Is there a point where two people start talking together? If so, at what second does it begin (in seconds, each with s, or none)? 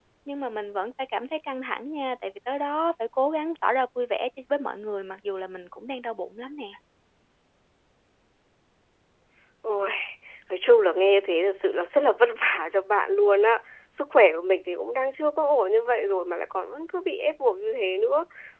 none